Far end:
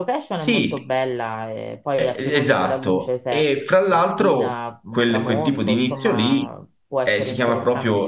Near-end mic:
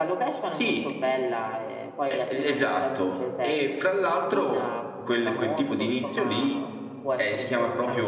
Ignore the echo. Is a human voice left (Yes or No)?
No